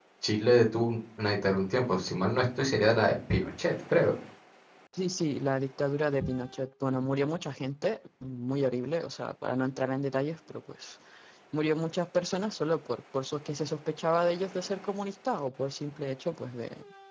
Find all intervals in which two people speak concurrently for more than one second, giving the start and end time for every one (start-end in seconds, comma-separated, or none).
none